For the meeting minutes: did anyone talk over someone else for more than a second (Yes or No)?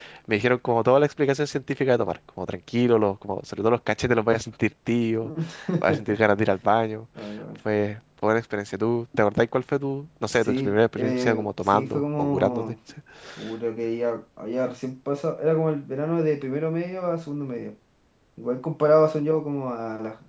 Yes